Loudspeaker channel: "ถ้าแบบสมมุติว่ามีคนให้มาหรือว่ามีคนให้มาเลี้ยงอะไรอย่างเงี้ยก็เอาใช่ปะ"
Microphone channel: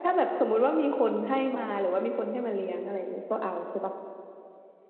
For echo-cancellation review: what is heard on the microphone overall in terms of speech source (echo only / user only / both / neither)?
echo only